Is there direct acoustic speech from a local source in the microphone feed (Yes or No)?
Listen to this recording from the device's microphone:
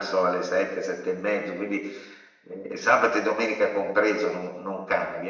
No